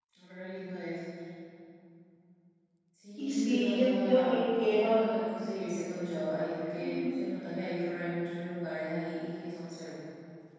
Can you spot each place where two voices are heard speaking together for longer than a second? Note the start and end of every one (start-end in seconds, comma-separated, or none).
3.2-4.9